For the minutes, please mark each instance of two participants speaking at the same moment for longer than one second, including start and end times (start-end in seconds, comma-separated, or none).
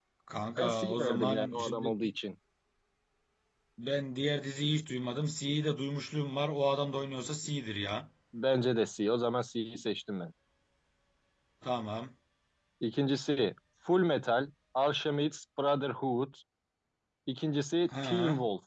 0.6-1.9